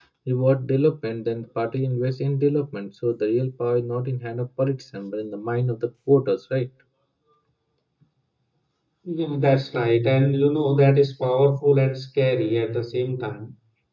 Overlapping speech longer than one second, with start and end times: none

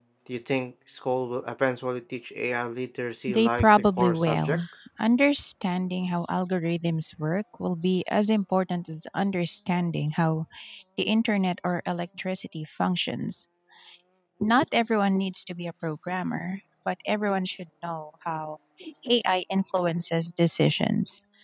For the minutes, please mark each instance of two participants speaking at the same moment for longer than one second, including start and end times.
3.3-4.6

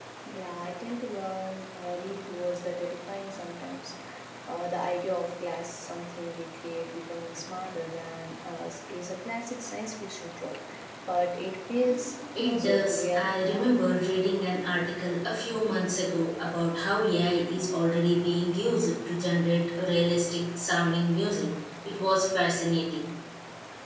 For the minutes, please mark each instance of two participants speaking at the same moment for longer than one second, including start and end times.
12.3-13.7

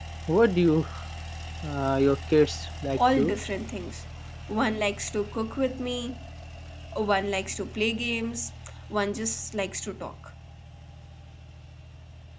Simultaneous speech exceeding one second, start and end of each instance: none

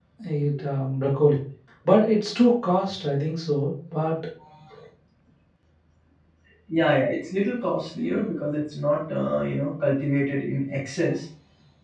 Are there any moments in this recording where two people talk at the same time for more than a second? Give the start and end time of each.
none

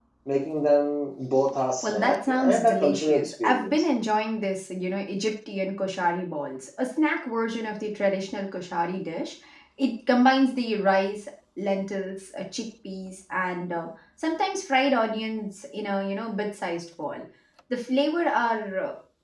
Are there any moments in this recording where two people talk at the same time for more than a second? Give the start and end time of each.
1.8-3.8

